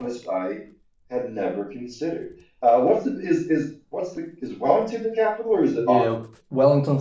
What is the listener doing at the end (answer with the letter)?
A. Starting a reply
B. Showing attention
A